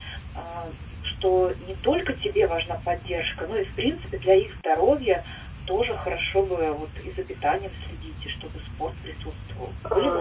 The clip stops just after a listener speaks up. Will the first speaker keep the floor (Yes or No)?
No